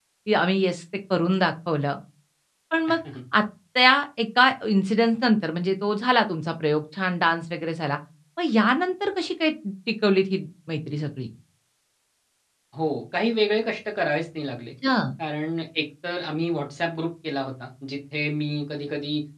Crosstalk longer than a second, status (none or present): none